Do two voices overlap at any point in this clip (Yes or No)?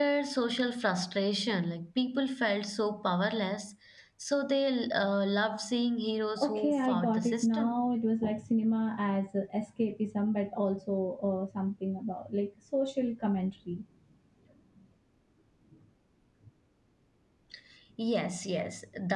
Yes